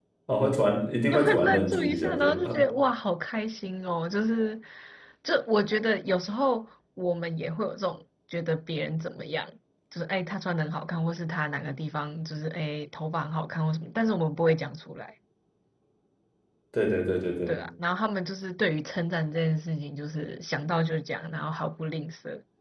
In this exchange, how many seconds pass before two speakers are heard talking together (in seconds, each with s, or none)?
1.1 s